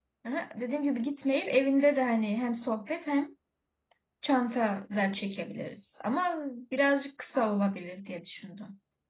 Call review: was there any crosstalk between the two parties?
No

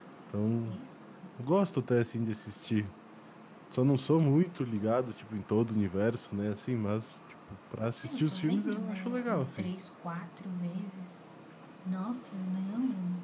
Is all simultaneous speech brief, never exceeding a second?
No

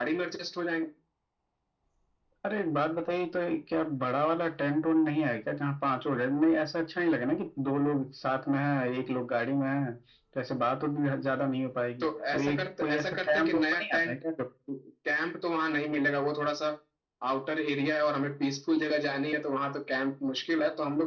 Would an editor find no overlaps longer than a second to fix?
No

